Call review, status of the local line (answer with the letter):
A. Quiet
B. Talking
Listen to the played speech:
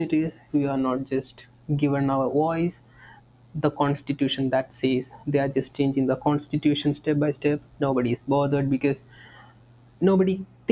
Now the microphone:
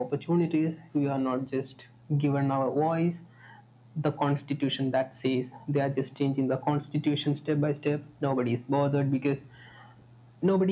A